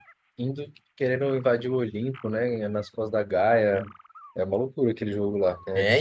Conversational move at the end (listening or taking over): taking over